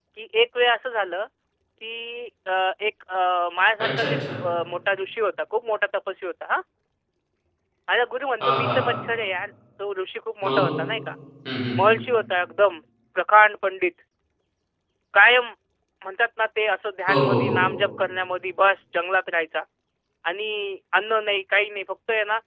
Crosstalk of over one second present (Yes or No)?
No